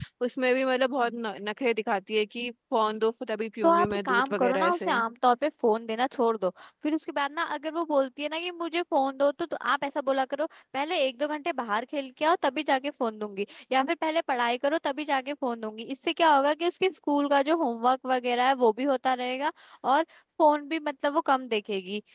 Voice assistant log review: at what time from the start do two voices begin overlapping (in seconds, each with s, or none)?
3.6 s